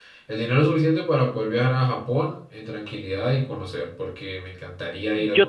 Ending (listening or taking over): taking over